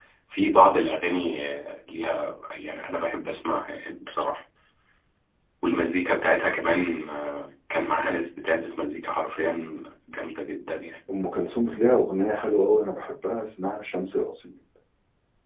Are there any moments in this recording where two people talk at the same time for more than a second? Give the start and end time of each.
none

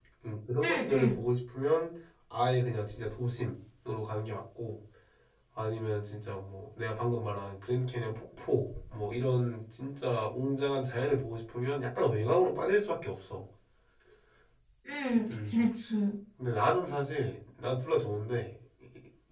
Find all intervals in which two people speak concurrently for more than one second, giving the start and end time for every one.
none

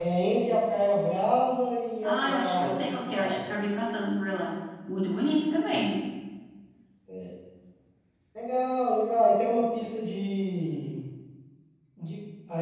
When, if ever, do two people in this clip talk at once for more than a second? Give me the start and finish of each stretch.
2.0-3.4

